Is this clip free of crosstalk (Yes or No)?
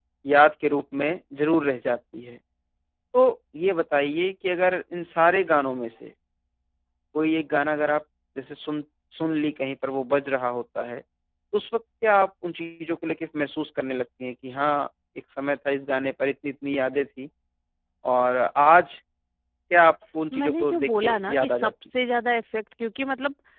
No